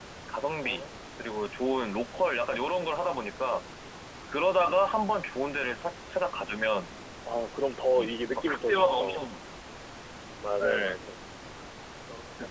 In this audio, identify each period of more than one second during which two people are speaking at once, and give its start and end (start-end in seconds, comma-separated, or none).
7.9-9.2